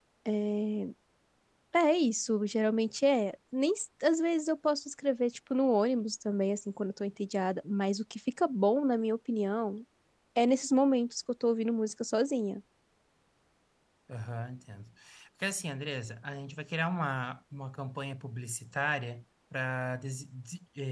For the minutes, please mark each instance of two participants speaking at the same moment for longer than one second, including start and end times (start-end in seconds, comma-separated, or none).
none